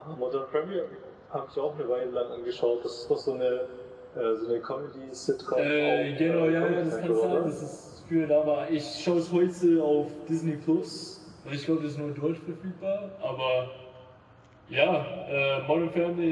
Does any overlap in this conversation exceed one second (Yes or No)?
Yes